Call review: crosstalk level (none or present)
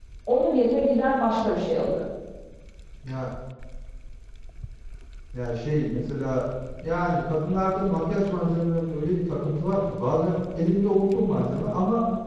none